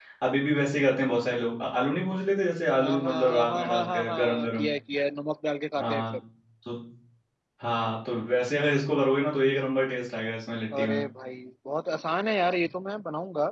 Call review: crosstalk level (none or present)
present